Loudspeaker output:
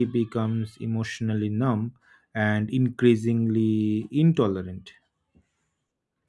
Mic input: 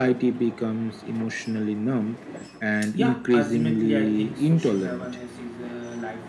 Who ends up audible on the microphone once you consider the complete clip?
both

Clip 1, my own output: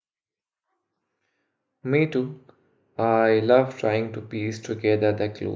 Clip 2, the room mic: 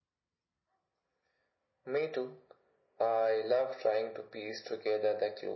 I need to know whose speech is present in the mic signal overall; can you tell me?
echo only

